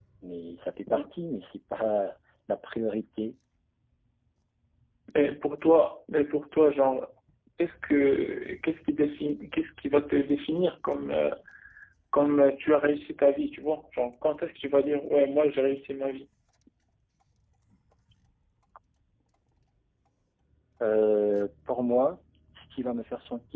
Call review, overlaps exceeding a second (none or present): none